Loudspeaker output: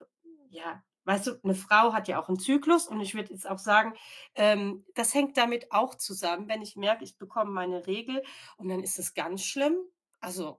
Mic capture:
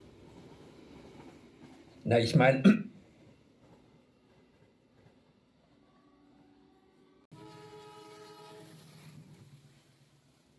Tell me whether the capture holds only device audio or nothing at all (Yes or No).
No